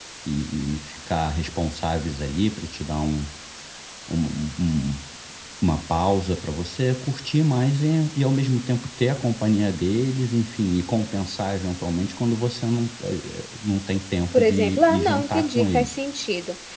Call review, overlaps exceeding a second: present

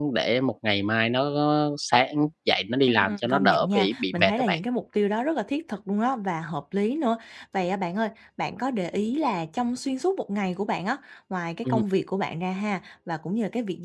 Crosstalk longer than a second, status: present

